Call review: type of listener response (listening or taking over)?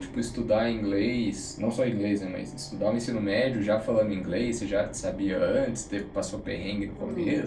taking over